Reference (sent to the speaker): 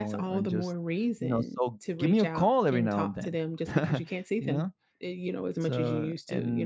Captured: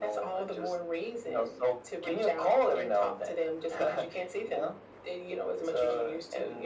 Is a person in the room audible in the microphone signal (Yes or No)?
No